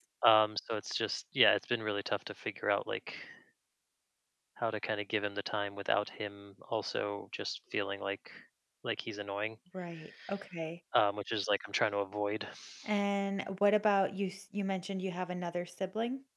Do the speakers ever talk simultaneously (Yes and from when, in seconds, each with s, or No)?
No